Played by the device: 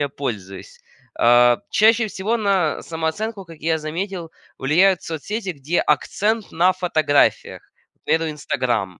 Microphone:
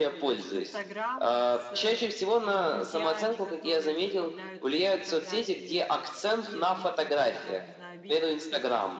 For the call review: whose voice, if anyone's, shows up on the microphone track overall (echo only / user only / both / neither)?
both